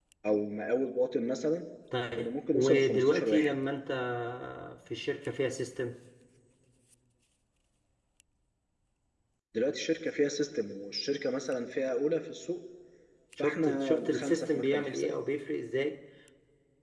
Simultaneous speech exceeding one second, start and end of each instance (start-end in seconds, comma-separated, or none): 2.2-3.6, 13.4-15.2